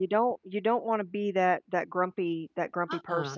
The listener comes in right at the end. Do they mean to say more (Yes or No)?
Yes